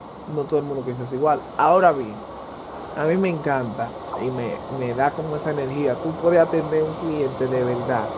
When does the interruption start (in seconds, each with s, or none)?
none